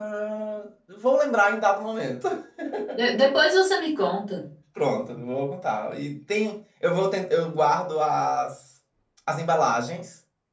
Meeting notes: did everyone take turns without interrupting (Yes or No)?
Yes